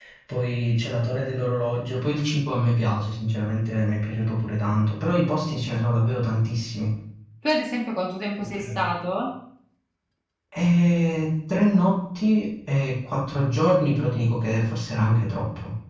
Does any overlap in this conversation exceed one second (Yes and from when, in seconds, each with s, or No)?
No